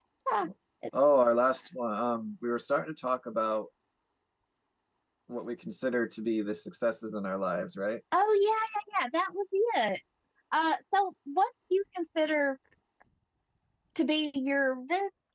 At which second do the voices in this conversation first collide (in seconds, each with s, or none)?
none